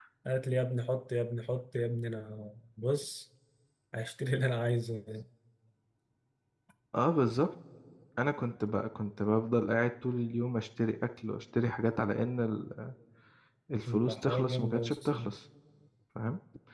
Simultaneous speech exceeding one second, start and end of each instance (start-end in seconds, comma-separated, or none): 14.1-15.3